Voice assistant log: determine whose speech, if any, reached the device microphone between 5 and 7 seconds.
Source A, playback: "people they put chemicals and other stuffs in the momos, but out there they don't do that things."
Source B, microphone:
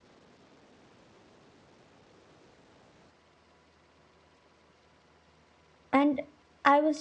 user only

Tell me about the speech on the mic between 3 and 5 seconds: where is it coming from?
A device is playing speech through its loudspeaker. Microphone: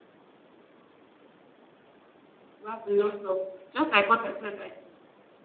user only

